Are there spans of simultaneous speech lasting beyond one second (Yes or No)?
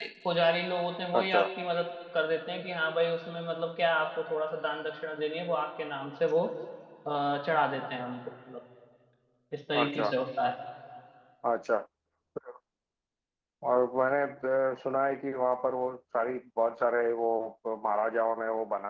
No